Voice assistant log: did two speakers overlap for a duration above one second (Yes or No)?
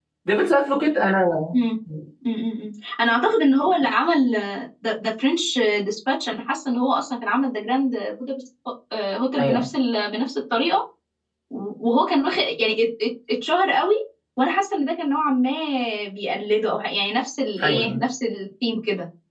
No